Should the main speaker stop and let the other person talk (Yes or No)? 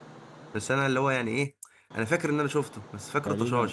Yes